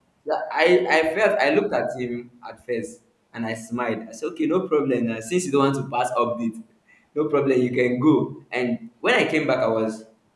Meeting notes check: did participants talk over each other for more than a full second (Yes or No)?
No